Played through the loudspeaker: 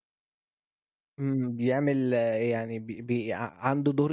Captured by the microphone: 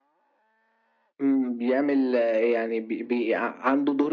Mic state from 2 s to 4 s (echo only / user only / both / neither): echo only